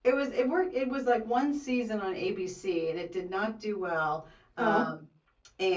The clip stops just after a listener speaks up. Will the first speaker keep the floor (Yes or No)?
Yes